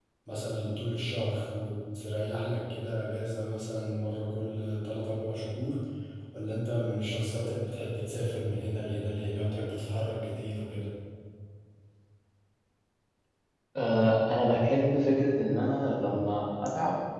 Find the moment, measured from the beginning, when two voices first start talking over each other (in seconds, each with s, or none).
none